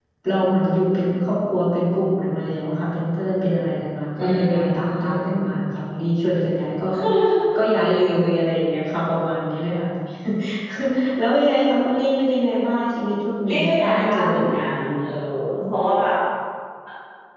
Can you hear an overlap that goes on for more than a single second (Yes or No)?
Yes